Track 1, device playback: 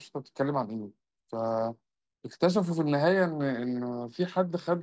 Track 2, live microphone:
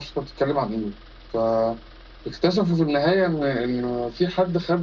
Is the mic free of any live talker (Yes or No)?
Yes